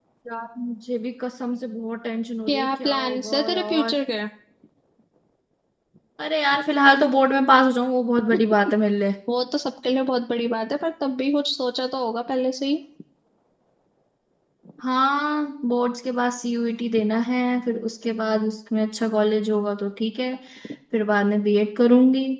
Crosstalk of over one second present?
Yes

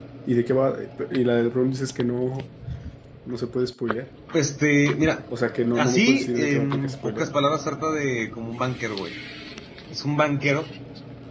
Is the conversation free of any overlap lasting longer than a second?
No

